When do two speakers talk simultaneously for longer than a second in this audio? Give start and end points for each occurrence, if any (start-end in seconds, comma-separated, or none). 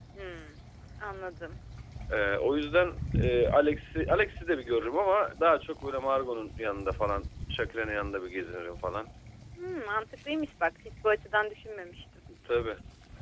none